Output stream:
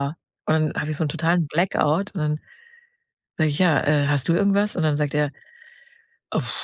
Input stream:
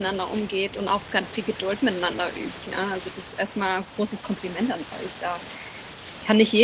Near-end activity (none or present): present